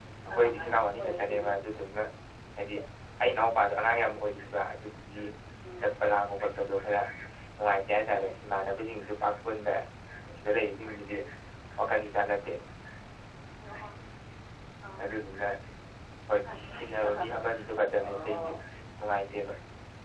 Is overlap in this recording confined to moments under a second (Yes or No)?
No